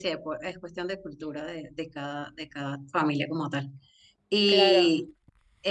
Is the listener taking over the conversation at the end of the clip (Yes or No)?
No